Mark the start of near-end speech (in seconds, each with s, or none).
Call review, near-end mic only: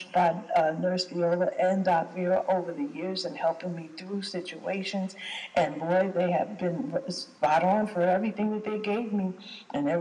none